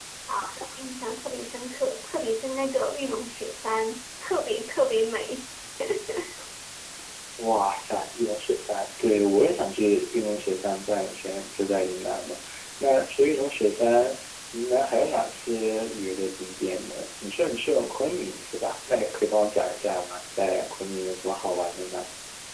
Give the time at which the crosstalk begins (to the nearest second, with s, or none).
none